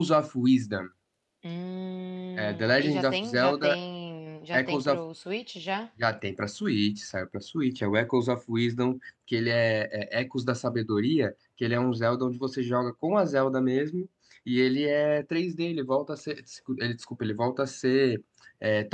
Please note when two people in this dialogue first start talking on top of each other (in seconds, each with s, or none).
2.4 s